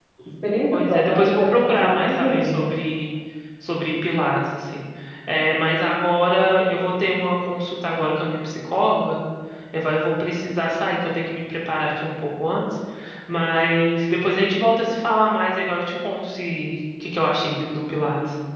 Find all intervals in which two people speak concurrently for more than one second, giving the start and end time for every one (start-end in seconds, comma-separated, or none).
0.7-2.7